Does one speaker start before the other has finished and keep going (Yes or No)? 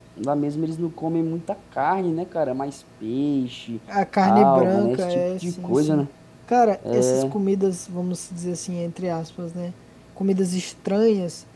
Yes